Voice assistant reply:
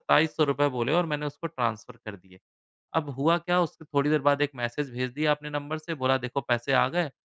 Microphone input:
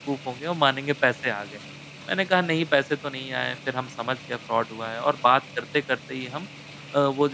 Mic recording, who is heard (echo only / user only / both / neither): user only